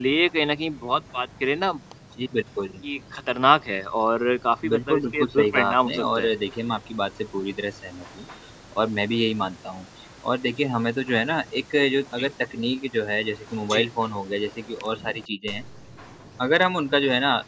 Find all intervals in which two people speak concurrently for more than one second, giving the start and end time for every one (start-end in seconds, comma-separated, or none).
4.7-6.3